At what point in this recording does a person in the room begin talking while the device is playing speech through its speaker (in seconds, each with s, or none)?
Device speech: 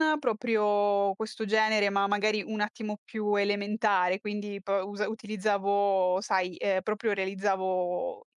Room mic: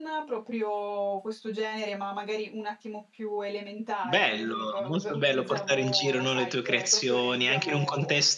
4.0 s